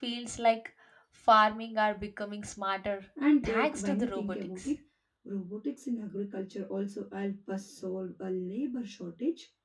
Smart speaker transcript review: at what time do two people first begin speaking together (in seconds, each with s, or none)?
3.4 s